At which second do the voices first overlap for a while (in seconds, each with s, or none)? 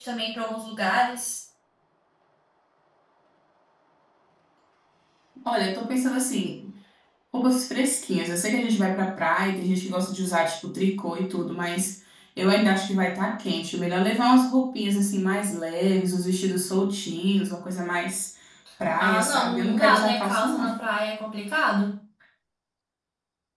19.0 s